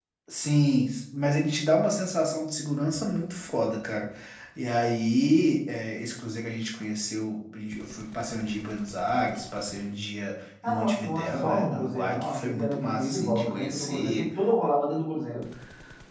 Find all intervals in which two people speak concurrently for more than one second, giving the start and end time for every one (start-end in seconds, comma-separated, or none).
10.7-14.2